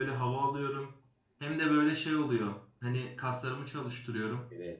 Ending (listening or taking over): listening